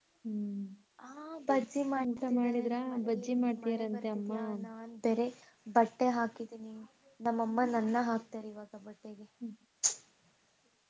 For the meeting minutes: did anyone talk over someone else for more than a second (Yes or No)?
Yes